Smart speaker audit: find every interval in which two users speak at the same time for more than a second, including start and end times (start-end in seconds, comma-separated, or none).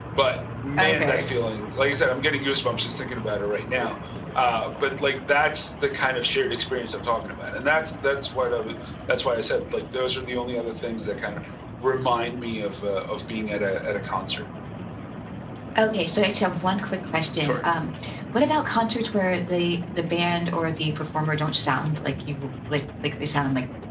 none